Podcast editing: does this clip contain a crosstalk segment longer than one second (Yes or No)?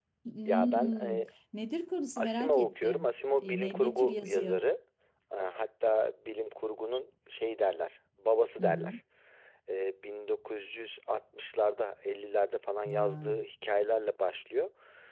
Yes